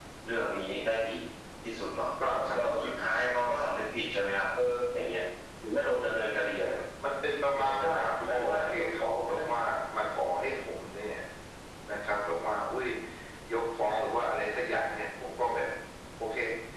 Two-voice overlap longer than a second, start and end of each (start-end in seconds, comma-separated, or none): 7.5-9.6